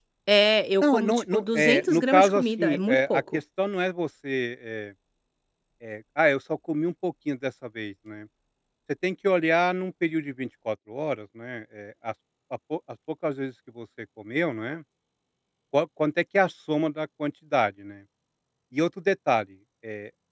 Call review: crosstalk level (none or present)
present